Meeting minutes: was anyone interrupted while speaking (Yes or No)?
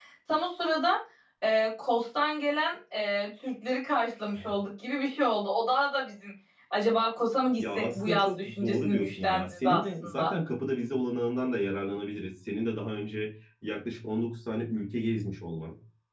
Yes